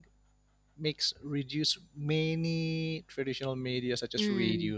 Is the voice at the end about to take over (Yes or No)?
No